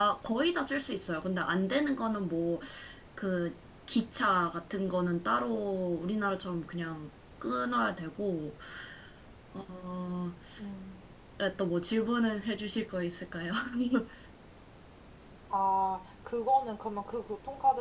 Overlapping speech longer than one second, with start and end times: none

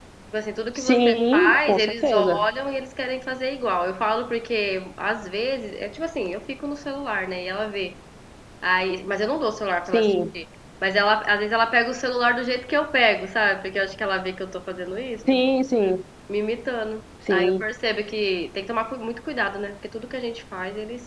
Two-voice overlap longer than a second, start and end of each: 0.8-2.4

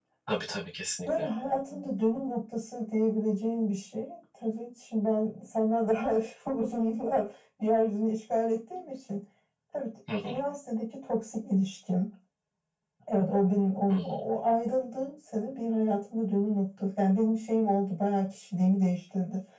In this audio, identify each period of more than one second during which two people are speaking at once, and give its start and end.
none

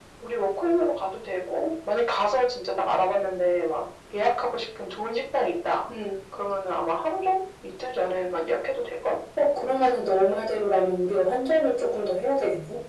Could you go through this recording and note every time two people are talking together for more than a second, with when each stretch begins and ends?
none

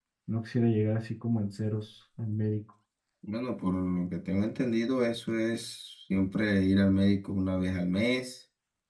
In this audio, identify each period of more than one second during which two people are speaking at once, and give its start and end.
none

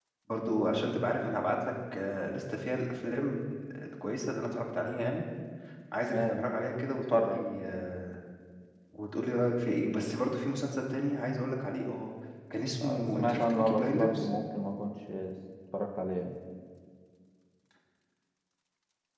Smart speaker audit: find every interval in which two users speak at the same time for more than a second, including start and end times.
12.8-14.3

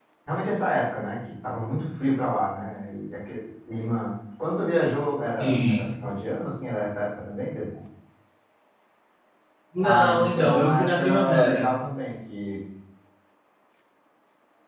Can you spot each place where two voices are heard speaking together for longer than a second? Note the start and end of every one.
9.8-11.7

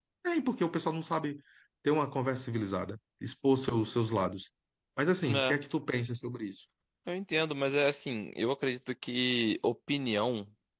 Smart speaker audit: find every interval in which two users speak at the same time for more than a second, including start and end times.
none

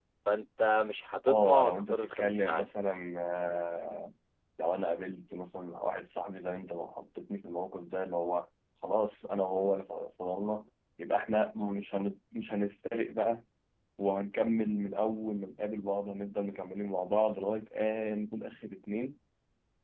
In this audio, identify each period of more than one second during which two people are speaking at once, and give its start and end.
1.3-2.7

